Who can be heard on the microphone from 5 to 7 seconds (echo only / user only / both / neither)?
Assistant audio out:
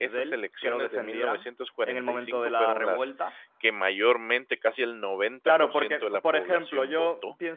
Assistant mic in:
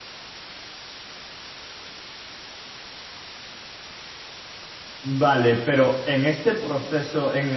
user only